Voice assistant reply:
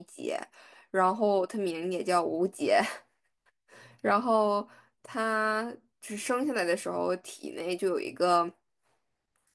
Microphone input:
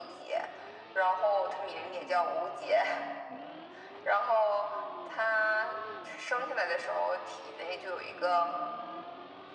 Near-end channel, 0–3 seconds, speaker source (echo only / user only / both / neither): echo only